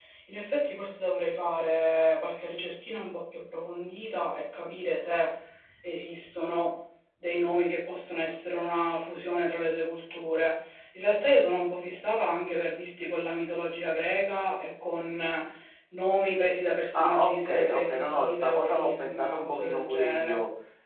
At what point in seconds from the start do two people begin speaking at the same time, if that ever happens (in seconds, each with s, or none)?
16.9 s